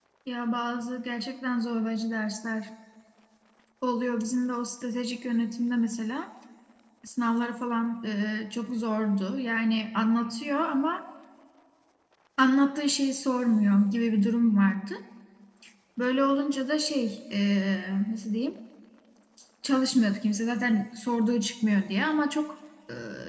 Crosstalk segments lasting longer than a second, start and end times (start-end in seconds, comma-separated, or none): none